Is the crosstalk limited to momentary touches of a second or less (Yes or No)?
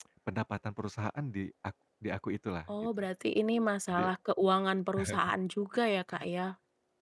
Yes